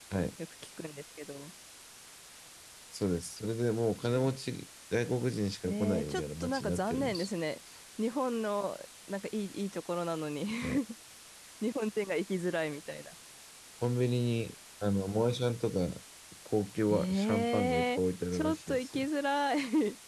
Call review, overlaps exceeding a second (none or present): present